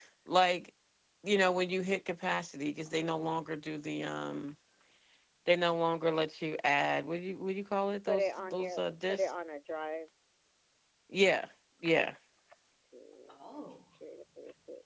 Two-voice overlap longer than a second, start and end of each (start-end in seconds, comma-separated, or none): 8.1-9.3